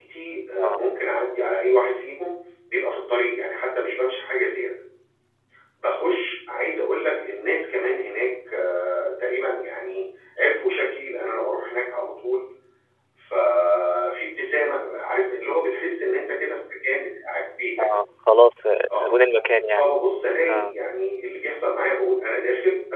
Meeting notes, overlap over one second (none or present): none